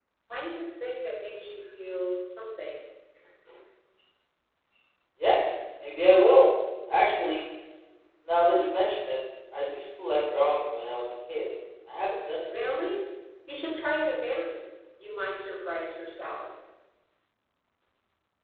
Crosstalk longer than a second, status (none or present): none